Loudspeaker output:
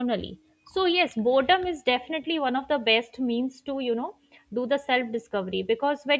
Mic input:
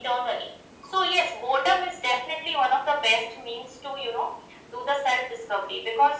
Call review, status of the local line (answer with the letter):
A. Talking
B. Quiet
B